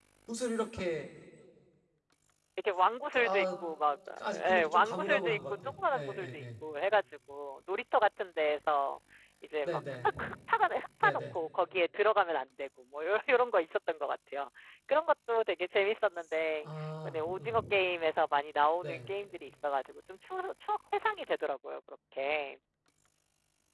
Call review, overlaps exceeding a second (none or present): present